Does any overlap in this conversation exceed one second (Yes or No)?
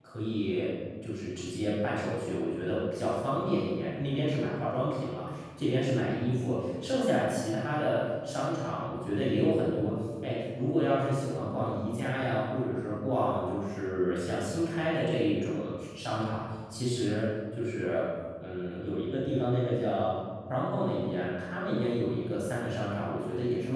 No